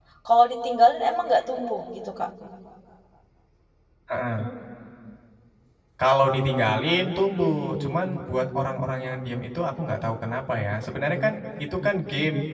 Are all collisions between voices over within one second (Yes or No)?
Yes